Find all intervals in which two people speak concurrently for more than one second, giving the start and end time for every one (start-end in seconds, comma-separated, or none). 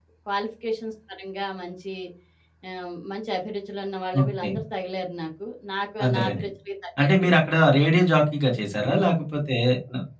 none